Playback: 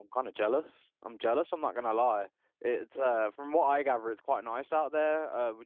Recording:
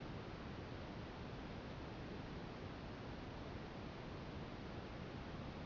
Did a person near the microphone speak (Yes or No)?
No